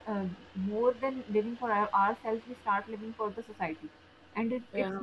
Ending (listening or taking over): listening